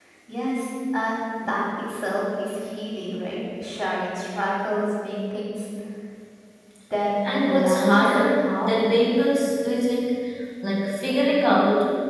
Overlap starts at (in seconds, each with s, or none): 7.2 s